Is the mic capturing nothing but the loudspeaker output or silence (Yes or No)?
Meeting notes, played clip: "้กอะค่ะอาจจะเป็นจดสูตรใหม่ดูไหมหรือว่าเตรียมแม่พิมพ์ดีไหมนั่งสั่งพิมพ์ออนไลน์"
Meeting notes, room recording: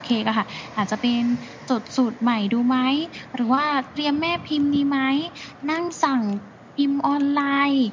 Yes